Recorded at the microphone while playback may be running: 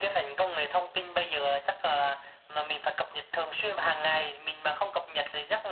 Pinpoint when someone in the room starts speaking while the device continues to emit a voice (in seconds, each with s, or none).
none